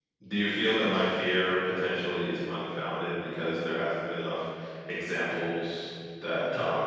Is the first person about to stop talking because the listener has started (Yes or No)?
Yes